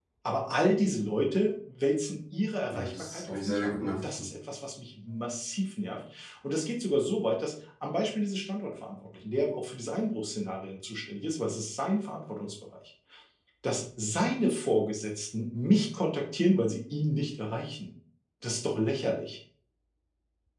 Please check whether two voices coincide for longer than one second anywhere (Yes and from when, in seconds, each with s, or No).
Yes, from 2.7 s